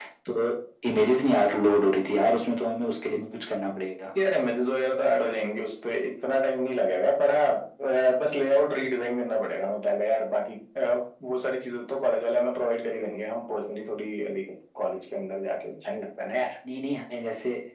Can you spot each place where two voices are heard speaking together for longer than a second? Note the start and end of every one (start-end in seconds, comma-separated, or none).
none